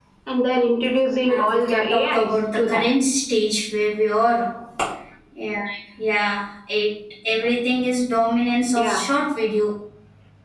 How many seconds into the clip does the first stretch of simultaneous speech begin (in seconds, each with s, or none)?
1.2 s